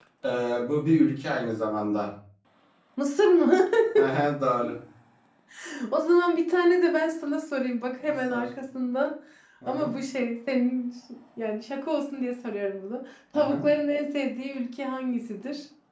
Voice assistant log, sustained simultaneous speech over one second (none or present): none